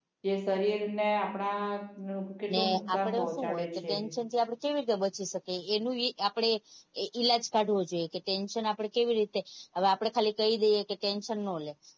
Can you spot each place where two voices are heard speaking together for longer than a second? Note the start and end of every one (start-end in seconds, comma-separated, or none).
2.5-3.9